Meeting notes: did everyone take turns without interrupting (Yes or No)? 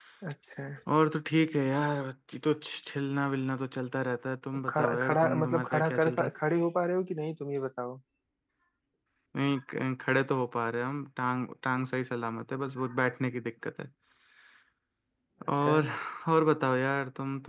No